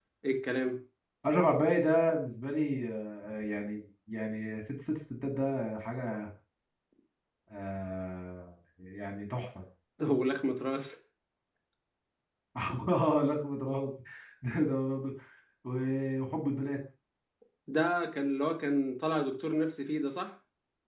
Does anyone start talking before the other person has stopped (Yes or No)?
No